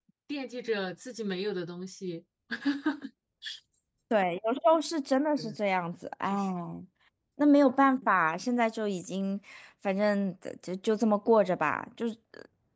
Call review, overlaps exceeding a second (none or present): none